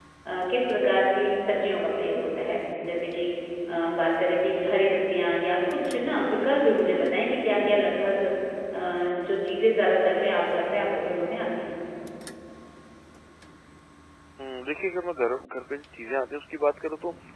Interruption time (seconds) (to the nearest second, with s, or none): none